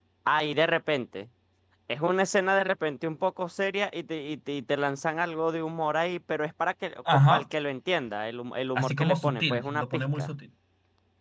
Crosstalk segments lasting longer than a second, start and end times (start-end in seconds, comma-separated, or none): 8.8-10.3